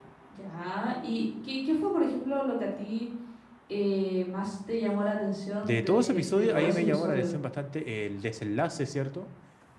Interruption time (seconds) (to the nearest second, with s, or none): 6 s